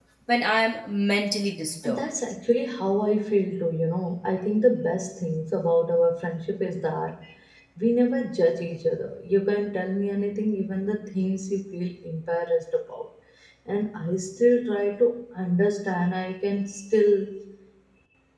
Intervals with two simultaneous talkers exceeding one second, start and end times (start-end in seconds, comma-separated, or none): none